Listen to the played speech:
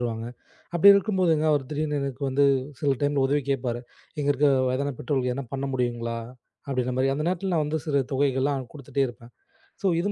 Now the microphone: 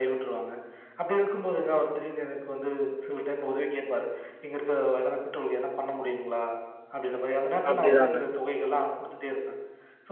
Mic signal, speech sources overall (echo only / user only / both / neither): both